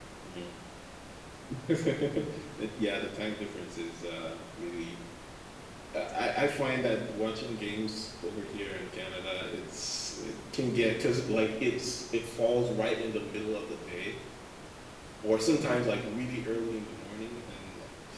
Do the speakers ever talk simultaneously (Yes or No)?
No